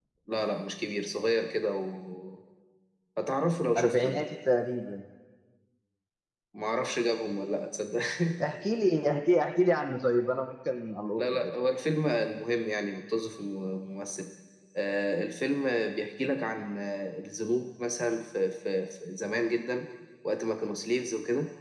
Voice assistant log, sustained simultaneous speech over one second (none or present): none